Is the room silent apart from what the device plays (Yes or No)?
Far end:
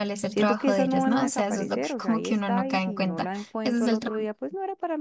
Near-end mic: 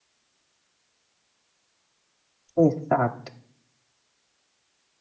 No